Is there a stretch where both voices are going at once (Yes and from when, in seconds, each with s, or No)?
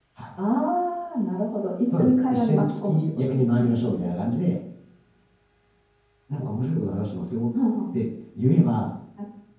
Yes, from 1.9 s